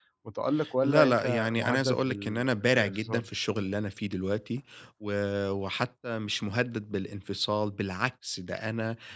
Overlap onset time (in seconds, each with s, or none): 0.8 s